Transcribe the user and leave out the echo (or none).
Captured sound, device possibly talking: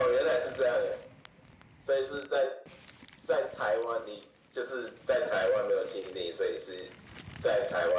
none